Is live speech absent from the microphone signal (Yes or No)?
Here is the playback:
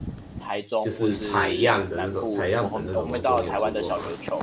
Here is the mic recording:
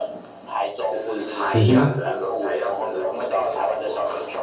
No